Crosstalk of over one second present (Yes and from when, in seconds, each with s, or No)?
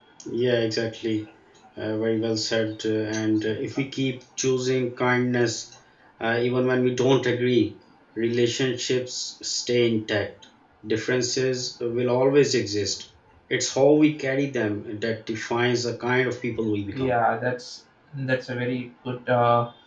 No